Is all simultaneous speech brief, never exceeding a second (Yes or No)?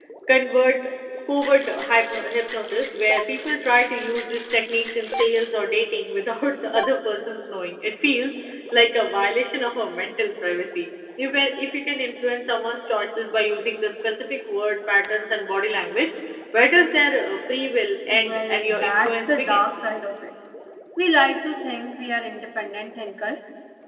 No